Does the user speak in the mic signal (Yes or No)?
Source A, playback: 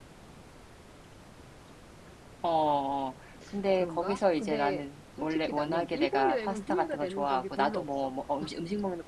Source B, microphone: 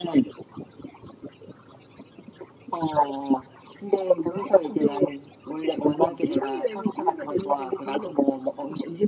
No